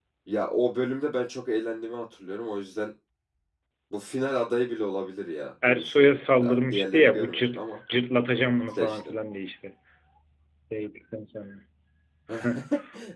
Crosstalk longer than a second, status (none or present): present